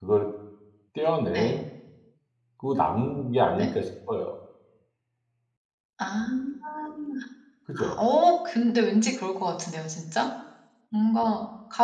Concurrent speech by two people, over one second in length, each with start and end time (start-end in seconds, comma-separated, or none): none